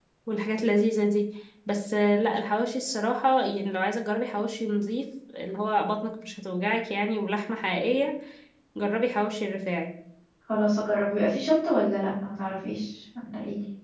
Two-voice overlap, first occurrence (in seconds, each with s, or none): none